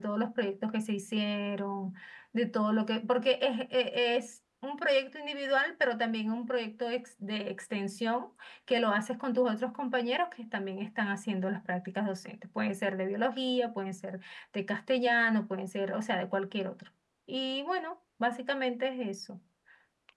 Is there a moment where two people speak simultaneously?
No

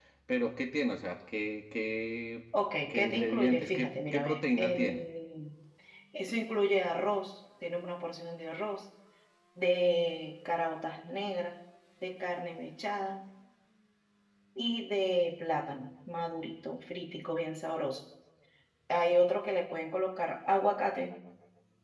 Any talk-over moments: Yes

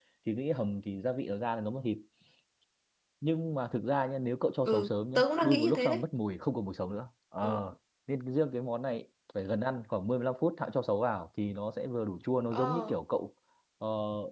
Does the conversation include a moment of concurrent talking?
Yes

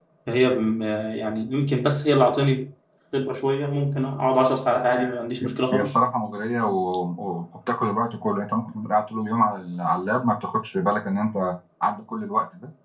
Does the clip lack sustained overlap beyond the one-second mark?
Yes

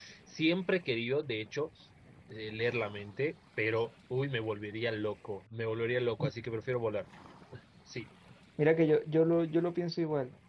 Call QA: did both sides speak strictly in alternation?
Yes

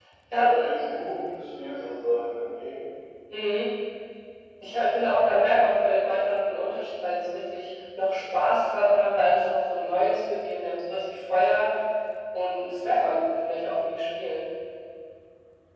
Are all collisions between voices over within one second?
Yes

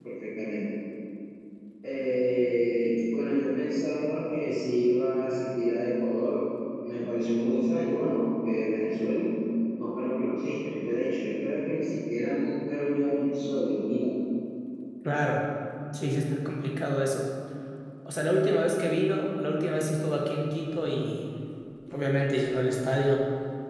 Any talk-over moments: No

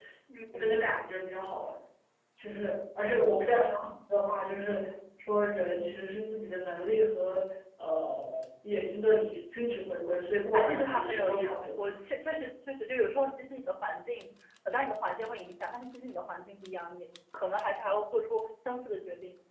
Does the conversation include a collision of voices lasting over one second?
Yes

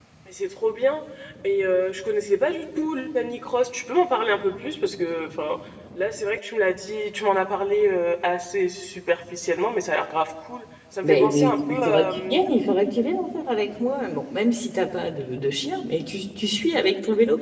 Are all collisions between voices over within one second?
No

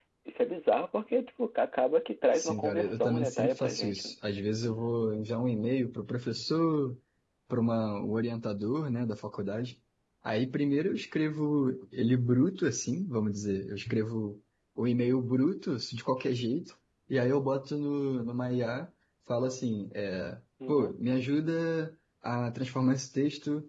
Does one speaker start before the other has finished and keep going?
Yes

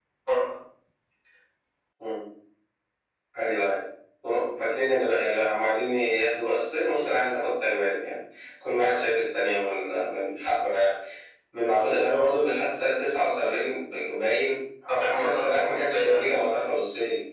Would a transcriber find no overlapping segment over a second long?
No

